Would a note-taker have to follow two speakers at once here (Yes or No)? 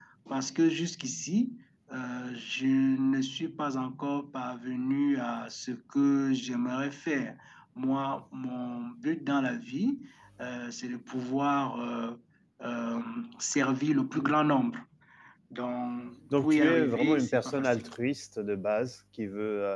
Yes